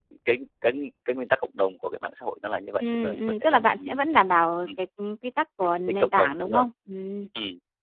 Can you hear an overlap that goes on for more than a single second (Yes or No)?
Yes